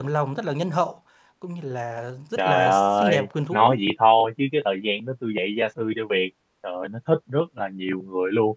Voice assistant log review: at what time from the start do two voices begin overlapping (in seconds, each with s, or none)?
2.4 s